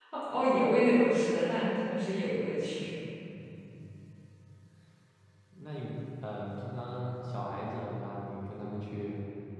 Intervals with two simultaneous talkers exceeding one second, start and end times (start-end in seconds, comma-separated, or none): none